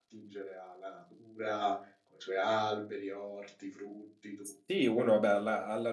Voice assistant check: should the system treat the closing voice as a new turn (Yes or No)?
Yes